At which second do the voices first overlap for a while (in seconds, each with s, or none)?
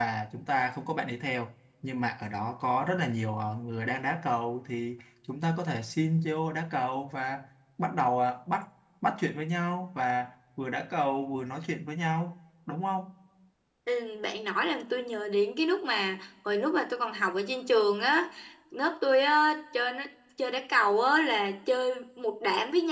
none